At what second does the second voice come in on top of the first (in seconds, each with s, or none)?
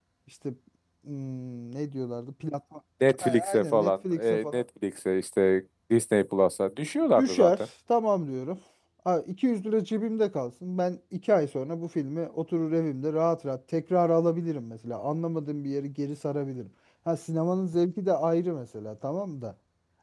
3.2 s